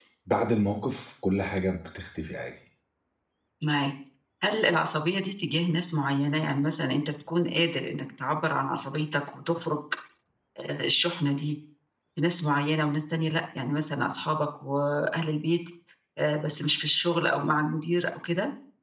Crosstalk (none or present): none